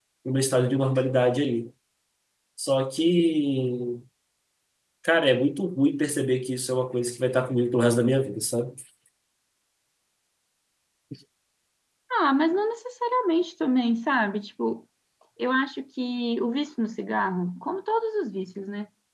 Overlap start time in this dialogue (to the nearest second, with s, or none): none